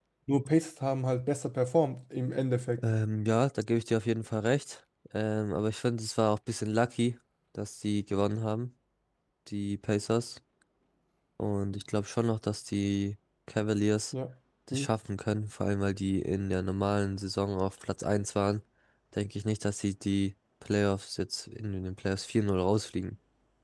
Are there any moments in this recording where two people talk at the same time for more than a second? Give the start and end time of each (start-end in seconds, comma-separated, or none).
none